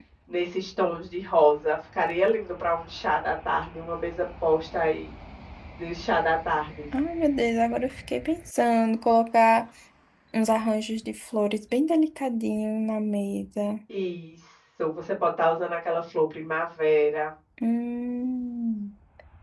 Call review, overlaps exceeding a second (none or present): none